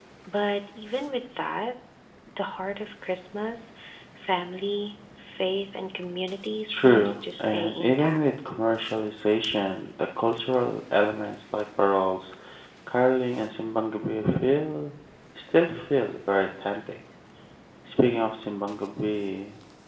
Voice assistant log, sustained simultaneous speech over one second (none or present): present